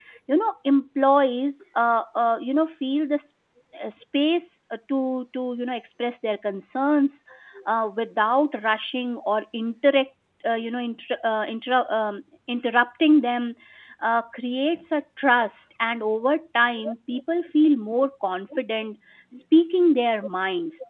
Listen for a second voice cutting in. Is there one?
No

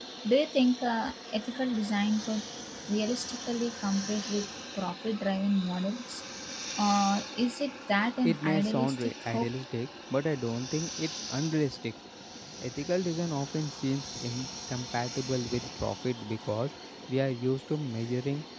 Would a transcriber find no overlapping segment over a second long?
No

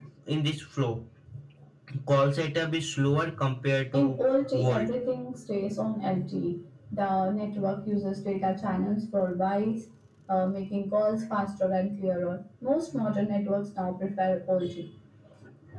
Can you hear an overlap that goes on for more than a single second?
No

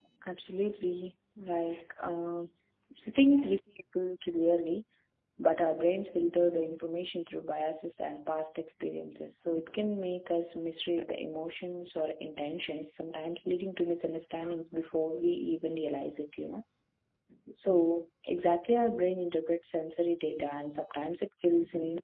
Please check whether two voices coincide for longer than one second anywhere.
No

